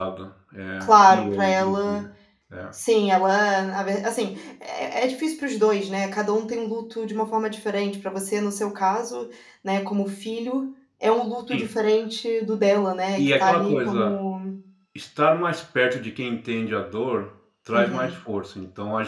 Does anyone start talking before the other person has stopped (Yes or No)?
Yes